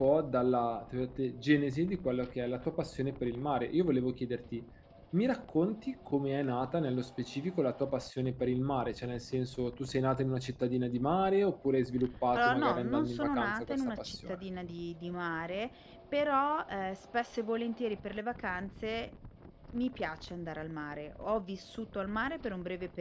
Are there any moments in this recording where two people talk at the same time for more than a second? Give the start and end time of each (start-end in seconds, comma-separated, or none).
12.3-14.4